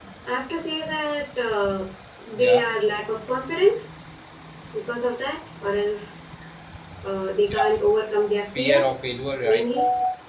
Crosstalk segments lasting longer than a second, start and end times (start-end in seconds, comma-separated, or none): none